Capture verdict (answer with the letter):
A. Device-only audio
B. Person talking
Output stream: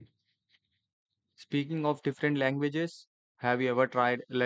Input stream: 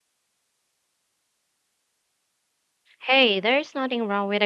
B